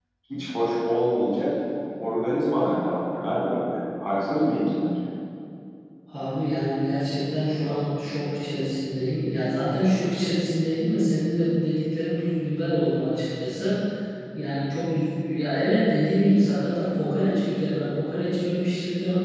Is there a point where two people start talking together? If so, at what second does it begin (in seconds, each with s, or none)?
none